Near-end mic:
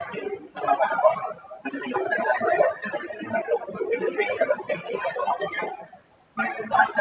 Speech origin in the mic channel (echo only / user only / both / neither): echo only